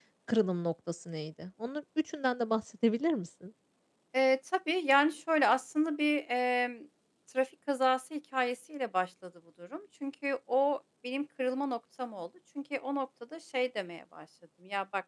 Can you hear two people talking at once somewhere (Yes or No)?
No